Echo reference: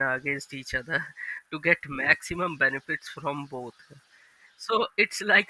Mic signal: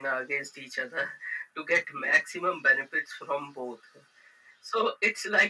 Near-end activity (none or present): none